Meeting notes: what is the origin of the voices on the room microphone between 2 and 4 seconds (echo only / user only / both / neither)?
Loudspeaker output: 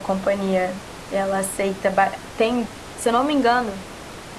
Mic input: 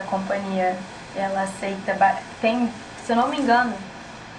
echo only